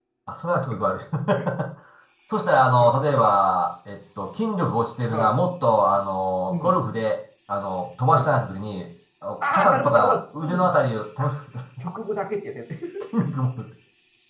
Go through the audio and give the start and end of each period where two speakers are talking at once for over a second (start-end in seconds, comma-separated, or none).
9.5-10.7